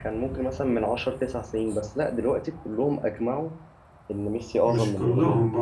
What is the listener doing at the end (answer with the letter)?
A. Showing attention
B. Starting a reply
B